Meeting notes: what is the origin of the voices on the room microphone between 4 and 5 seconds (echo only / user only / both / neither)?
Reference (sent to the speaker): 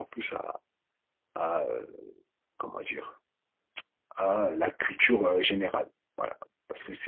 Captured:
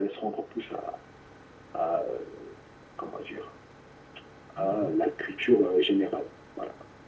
both